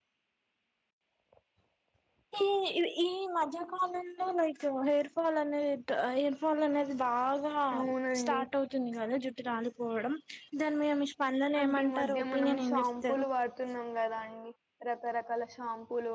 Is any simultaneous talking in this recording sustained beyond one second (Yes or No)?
Yes